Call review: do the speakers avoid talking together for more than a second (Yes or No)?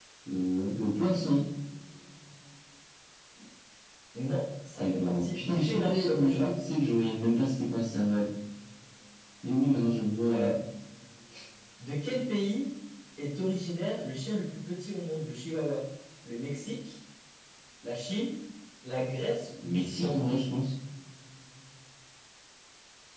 No